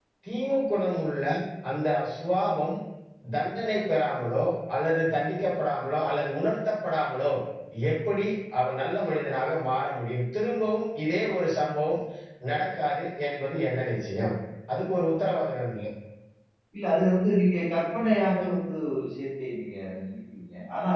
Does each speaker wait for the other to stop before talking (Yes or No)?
Yes